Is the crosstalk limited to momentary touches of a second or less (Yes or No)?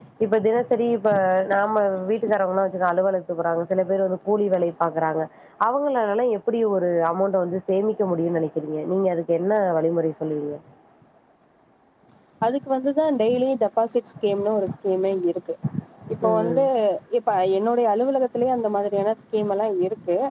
Yes